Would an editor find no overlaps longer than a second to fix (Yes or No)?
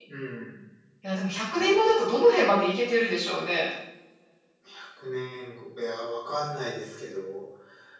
Yes